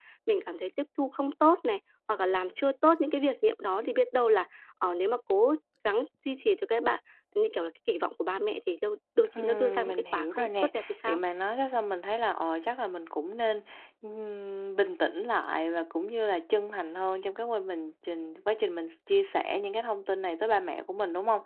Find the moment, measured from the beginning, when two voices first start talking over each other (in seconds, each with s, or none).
9.3 s